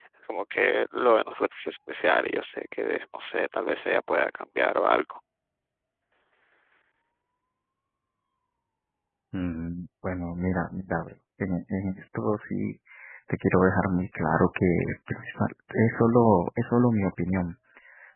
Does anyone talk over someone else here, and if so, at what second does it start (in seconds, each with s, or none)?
none